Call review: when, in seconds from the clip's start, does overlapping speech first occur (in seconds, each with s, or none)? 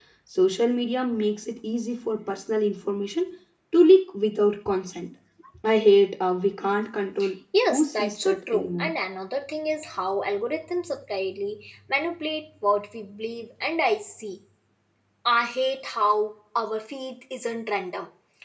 7.7 s